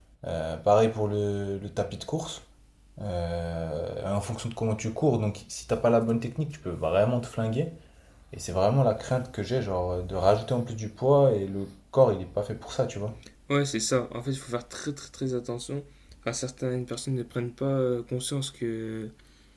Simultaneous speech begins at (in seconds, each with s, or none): none